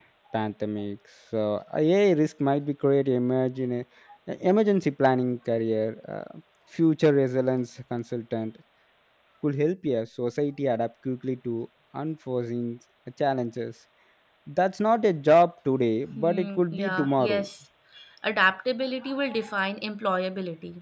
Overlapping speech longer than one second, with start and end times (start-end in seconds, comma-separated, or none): 16.2-17.4